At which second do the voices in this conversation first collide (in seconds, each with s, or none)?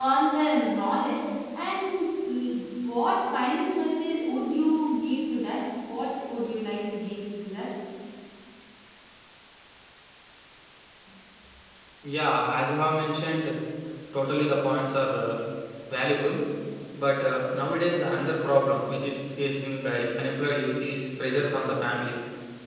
none